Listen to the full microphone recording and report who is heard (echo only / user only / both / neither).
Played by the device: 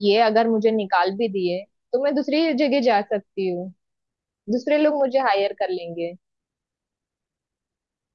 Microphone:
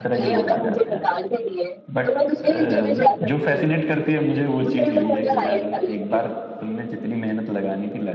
both